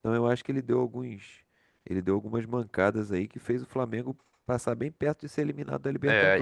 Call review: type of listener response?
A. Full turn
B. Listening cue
A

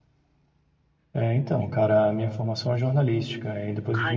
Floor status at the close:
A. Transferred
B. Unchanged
B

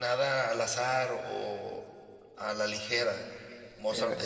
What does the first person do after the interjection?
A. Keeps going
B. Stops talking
A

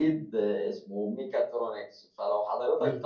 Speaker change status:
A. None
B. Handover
A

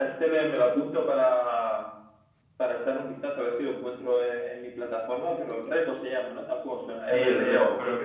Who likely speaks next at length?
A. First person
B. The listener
B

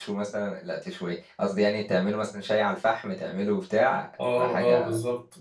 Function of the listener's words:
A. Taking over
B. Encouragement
A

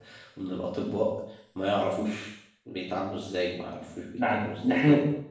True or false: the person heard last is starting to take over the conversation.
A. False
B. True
B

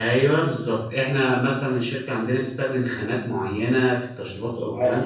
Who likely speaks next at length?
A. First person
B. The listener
A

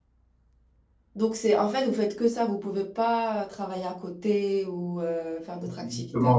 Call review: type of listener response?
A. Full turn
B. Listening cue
A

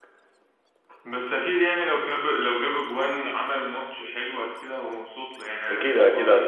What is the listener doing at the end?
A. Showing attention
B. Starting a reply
B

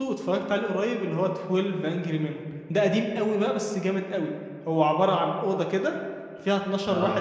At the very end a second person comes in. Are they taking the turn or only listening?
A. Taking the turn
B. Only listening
B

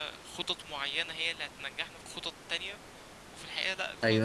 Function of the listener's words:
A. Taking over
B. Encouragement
A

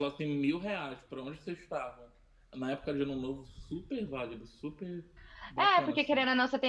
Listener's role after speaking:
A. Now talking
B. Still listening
A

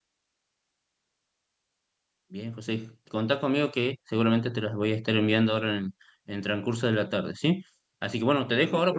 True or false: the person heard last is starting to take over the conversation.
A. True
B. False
B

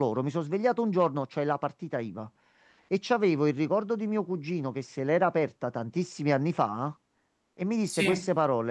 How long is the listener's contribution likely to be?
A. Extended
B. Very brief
B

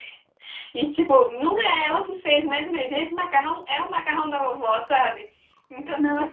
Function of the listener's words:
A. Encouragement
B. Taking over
A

